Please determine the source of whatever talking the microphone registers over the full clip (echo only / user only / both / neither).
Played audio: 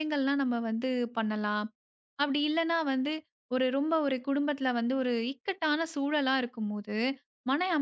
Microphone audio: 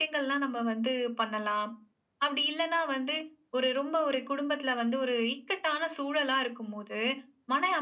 echo only